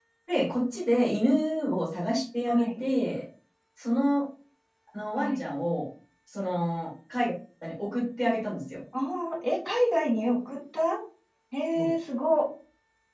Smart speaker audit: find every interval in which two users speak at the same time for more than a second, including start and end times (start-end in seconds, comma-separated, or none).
none